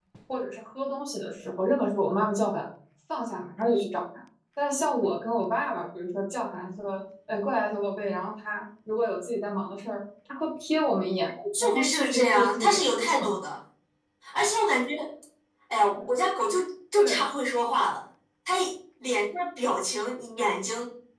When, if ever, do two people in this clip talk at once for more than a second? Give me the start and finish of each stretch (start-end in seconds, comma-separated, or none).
11.6-13.2